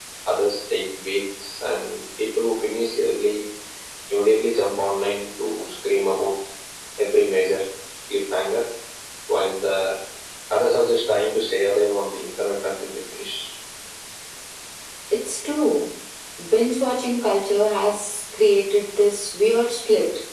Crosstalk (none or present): none